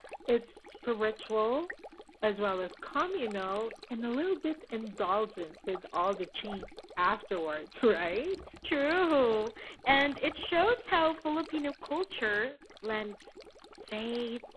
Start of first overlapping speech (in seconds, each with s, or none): none